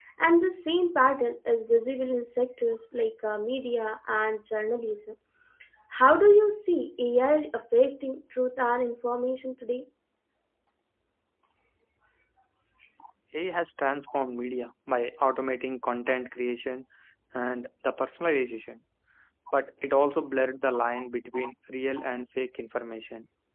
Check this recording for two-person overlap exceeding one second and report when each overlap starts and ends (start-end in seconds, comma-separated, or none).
none